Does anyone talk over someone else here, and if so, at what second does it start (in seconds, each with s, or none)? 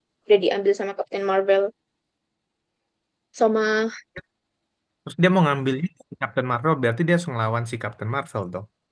none